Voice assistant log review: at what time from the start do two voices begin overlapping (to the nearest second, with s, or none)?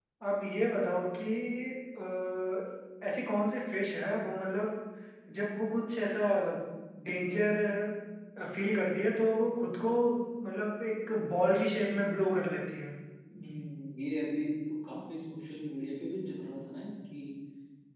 none